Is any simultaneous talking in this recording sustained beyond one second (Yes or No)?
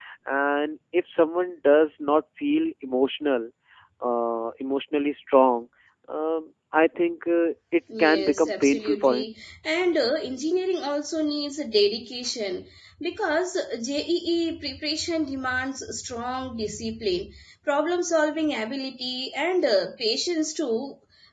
Yes